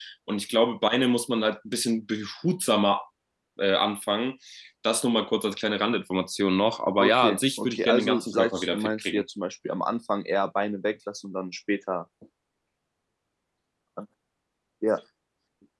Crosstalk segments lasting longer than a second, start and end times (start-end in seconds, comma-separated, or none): 7.0-9.2